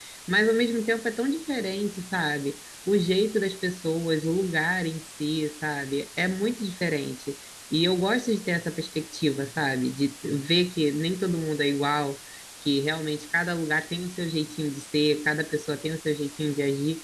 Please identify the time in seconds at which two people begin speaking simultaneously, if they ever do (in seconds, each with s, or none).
none